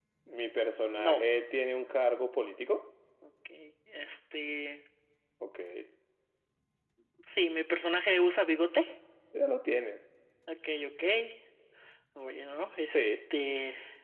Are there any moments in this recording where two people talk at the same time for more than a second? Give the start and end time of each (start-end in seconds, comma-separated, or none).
none